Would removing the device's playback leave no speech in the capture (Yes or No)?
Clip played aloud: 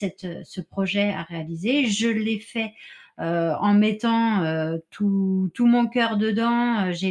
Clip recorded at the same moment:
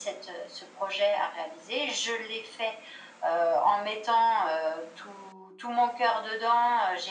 Yes